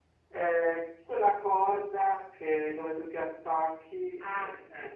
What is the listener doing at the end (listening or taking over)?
taking over